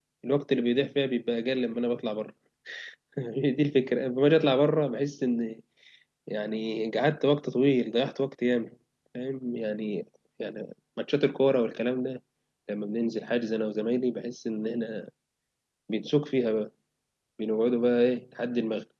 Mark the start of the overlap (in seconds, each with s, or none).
none